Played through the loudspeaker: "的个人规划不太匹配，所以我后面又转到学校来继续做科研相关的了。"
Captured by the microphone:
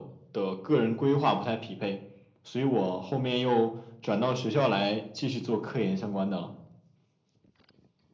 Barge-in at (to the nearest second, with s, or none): none